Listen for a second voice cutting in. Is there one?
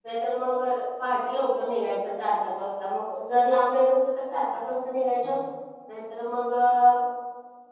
No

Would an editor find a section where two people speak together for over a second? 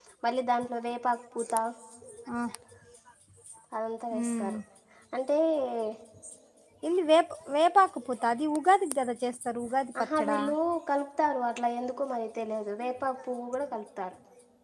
No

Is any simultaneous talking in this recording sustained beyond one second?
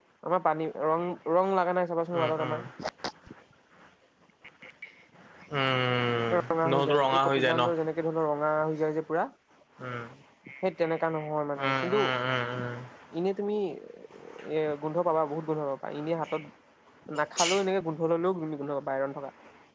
Yes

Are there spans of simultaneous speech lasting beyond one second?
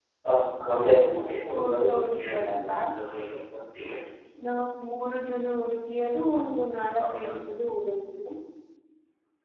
Yes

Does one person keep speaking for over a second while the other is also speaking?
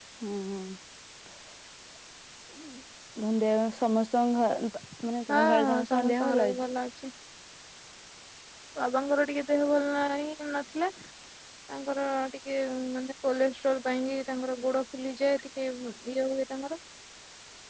Yes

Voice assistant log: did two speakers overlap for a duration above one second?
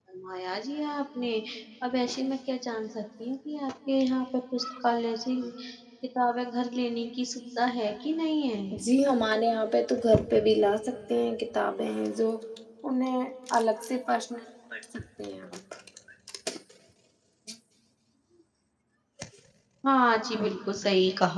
No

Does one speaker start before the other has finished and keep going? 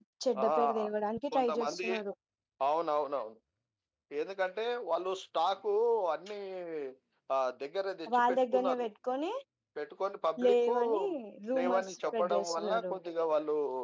Yes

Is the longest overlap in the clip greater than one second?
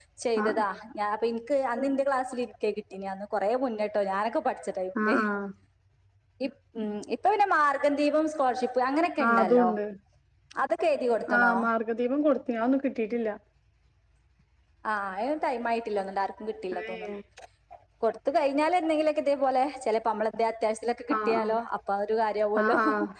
No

